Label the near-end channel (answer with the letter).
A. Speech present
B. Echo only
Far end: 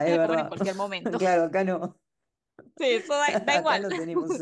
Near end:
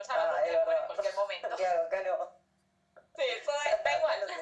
B